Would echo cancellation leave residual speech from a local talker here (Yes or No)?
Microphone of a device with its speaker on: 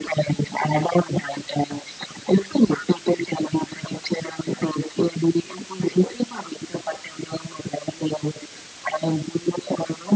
No